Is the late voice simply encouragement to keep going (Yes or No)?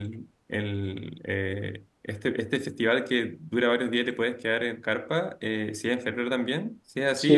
No